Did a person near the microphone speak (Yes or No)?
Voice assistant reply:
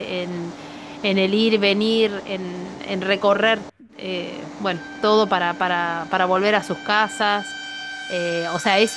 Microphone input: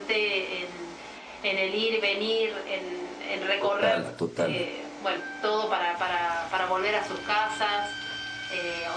Yes